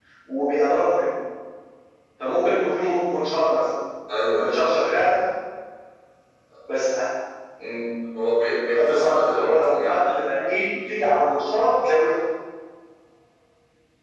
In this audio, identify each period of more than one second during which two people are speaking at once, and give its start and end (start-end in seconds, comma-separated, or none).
8.8-10.0